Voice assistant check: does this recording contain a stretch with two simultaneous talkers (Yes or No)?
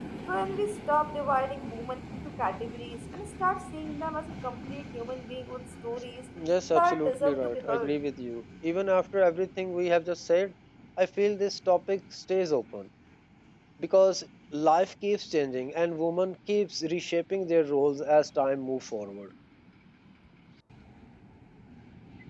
Yes